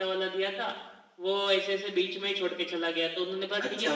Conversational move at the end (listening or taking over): taking over